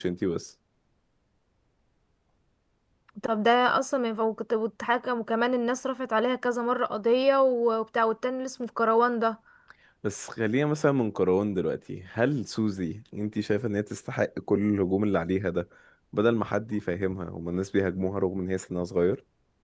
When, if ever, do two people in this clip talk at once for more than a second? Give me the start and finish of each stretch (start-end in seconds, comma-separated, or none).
none